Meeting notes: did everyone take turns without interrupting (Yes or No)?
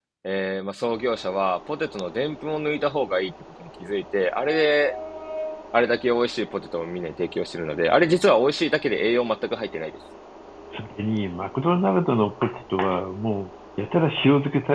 Yes